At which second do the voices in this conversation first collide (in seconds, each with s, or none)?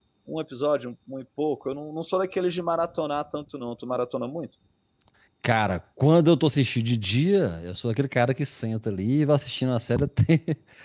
none